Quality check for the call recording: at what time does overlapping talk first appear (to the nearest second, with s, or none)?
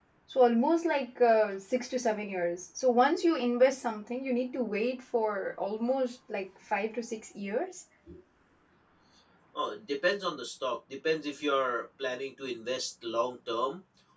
none